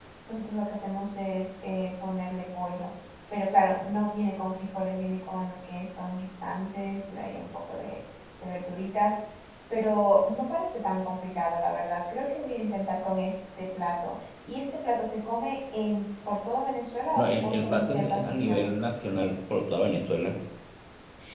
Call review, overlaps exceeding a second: present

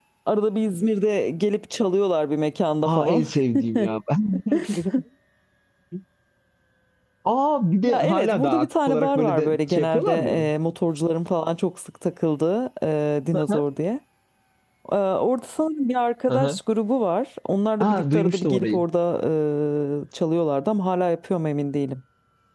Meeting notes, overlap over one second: present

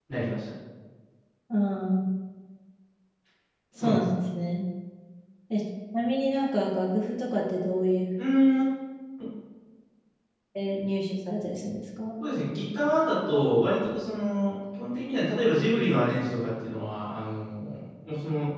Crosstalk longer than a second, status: none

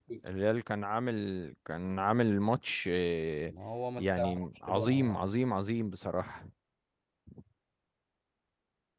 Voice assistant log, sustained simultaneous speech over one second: present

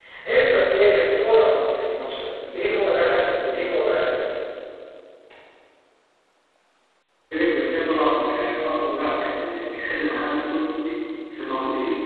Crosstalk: none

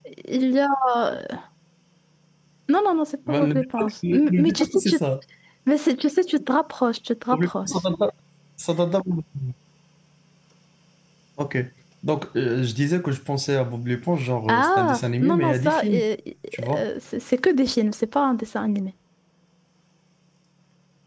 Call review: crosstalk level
present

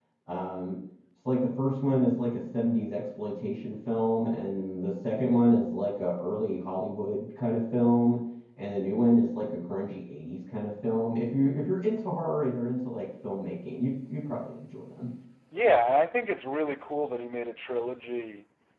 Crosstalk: none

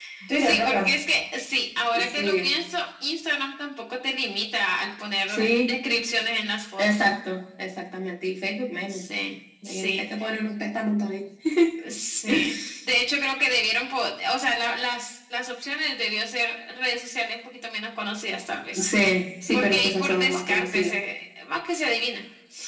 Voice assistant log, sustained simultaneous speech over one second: present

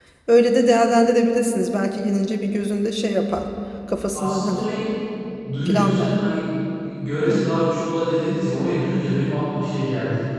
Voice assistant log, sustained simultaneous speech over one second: none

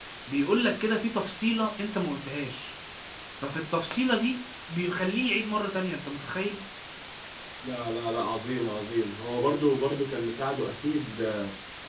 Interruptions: none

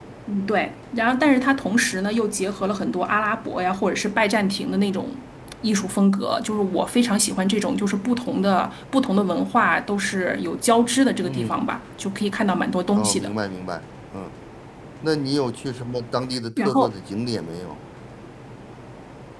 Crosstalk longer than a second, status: none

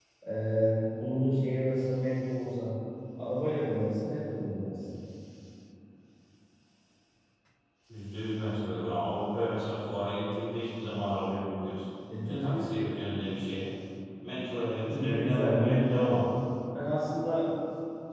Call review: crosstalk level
present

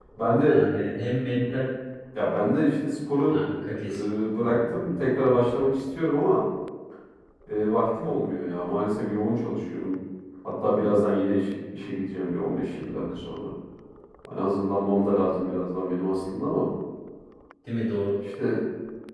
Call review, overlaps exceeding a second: none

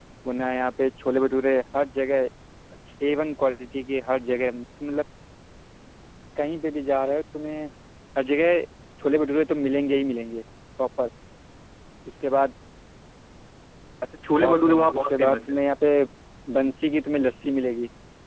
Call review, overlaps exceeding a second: present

